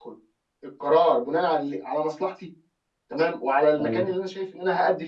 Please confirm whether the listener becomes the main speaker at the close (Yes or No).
No